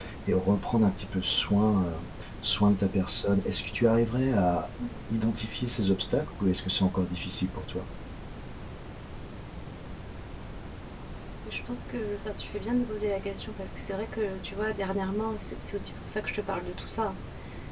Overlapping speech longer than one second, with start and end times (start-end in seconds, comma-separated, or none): none